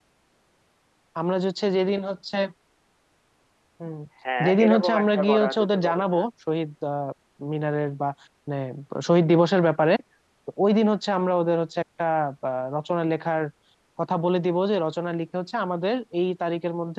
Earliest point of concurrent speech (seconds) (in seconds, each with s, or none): 4.5 s